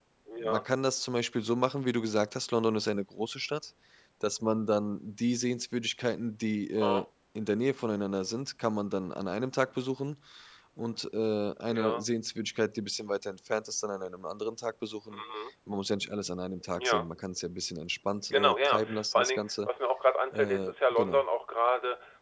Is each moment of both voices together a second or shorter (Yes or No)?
No